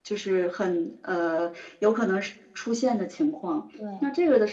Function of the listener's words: listening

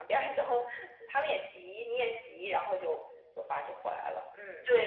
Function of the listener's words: taking over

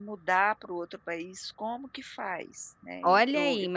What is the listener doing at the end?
taking over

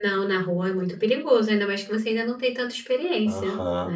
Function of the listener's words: taking over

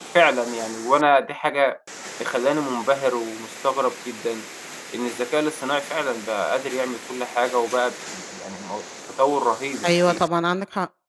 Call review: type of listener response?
taking over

